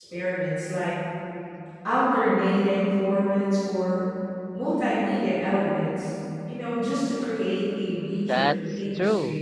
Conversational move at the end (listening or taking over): taking over